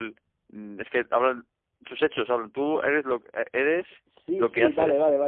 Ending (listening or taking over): taking over